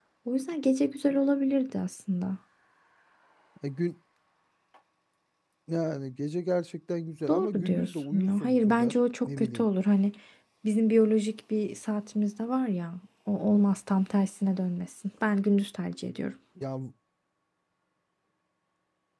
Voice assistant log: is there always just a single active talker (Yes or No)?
No